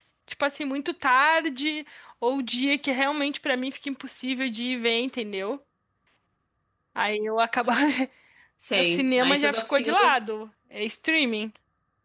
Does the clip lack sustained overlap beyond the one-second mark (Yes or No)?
No